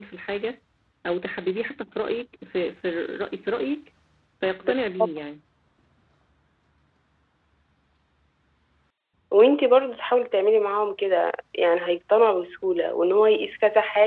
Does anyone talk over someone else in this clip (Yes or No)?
No